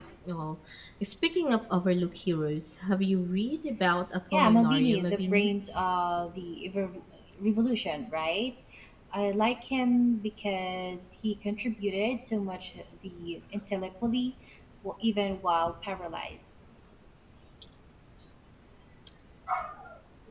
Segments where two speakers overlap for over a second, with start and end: 4.3-5.5

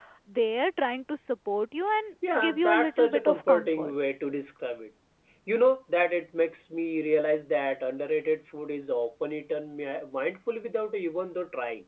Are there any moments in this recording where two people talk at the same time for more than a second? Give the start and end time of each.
2.3-3.9

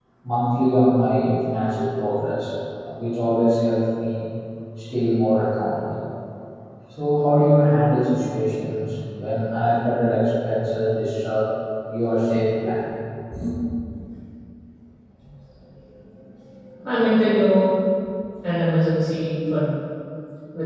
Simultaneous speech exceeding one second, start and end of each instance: none

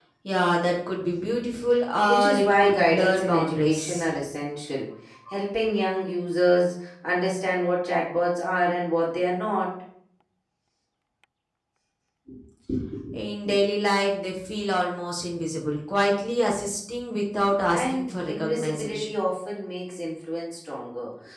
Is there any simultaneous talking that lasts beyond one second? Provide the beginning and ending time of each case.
2.1-4.1, 17.7-19.1

